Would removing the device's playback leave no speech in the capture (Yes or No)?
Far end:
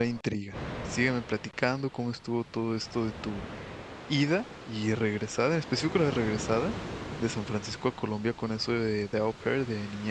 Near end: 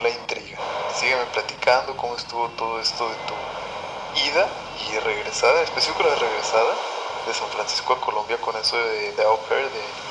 Yes